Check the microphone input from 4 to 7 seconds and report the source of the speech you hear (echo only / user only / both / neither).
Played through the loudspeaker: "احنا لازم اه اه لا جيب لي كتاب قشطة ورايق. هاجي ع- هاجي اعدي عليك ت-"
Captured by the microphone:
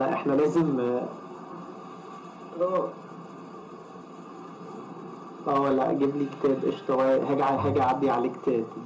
echo only